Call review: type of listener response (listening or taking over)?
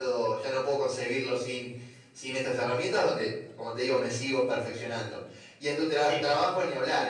listening